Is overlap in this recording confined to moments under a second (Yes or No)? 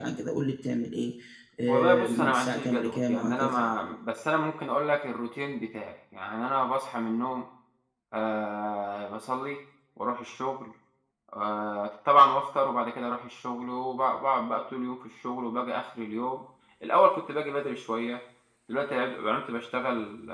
No